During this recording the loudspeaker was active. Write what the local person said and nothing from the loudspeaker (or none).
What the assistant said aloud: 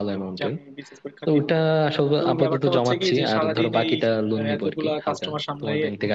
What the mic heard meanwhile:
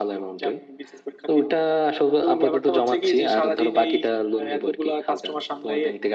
none